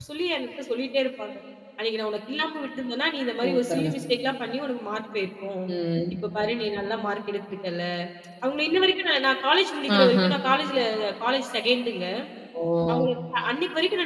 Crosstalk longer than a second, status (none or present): none